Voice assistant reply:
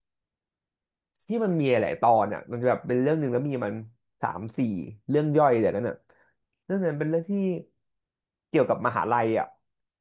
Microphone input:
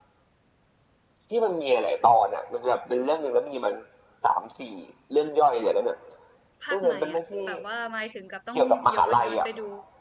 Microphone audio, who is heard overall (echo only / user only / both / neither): both